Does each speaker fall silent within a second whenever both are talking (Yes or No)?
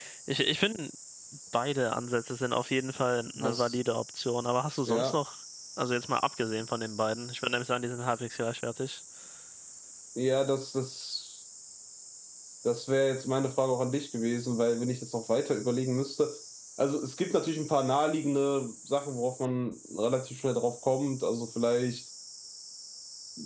Yes